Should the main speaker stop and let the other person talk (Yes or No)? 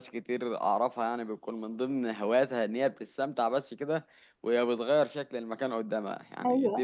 No